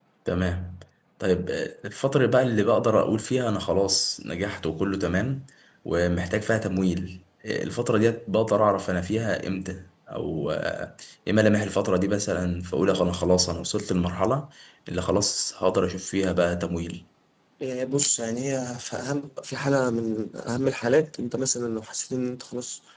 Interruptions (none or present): none